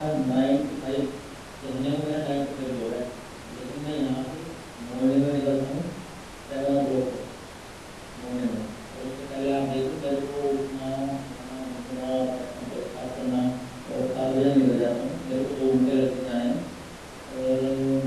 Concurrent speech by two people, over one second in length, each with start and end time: none

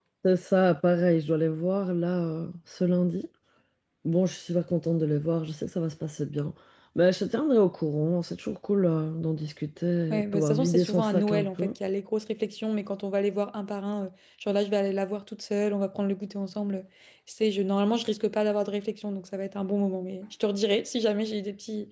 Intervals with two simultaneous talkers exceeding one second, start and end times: 10.1-11.7

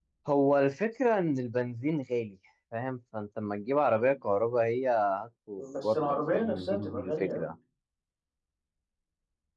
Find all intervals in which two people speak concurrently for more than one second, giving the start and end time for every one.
5.8-7.5

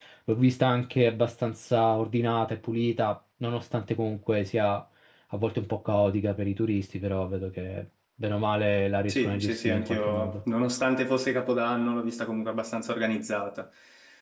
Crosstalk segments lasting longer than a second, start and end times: 9.1-10.4

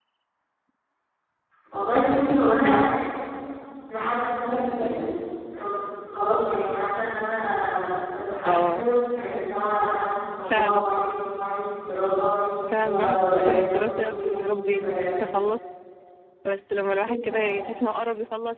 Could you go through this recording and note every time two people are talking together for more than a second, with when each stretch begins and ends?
12.7-15.2

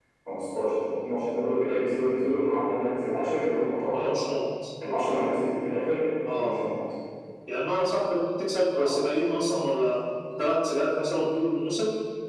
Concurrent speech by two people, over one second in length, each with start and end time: none

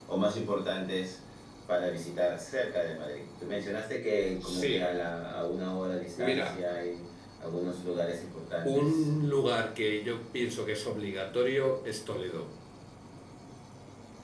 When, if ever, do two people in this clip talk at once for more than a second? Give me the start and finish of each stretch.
none

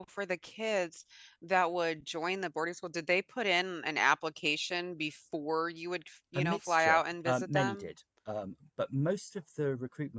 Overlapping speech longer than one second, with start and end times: 6.4-7.8

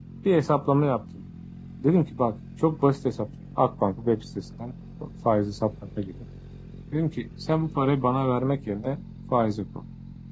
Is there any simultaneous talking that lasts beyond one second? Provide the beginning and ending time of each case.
none

